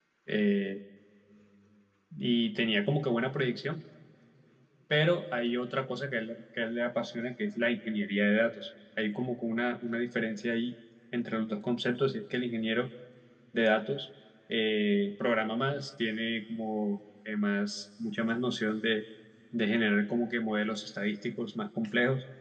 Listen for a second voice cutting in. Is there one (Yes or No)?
No